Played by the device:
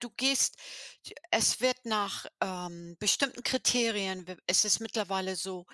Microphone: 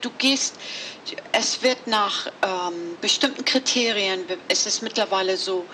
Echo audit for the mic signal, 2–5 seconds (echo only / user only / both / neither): echo only